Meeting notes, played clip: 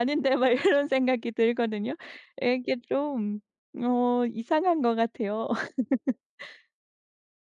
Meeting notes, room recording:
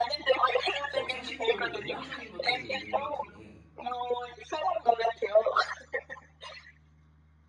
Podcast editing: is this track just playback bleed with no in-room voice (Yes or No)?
No